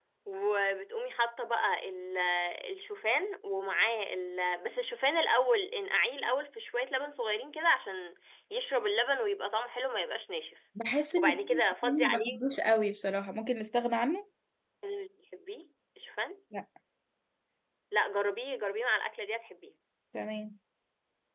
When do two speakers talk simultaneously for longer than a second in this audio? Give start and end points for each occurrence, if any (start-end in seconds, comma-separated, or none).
11.2-12.4